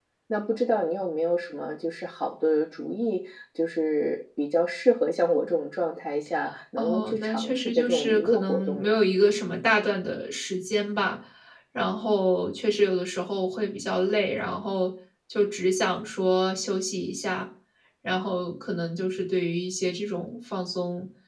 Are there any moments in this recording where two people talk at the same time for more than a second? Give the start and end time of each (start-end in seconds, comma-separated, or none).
6.8-9.0